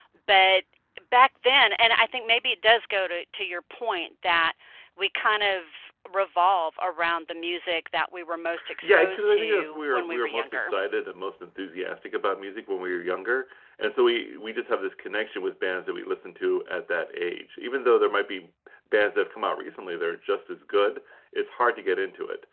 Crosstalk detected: Yes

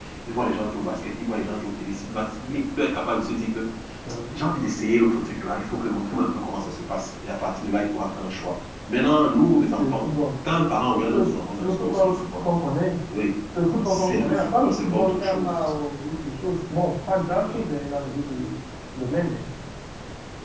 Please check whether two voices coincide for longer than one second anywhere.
Yes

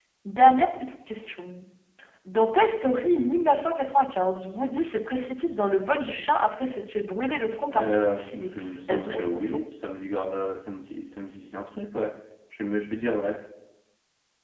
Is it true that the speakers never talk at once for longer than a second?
No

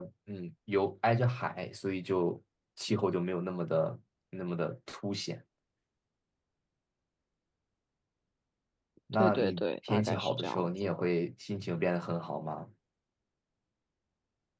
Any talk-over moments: Yes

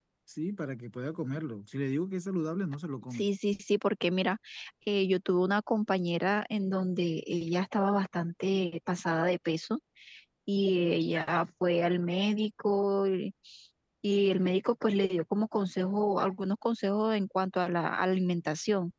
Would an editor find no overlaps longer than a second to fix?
Yes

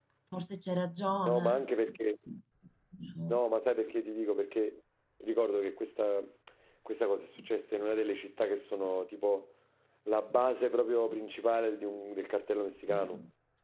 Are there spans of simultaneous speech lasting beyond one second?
No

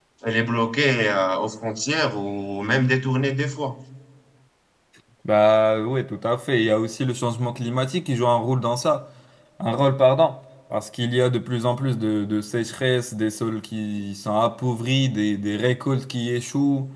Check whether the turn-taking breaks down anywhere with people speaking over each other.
No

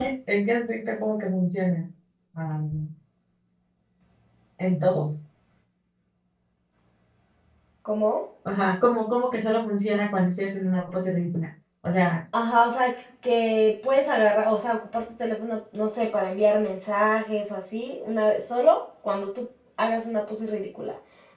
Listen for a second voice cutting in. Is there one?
No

